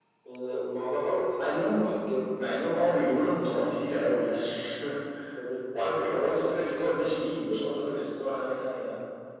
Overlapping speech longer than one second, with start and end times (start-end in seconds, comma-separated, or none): 5.7-8.2